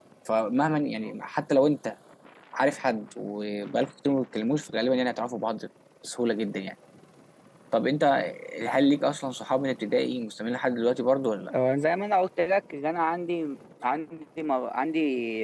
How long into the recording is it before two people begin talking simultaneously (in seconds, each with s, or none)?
none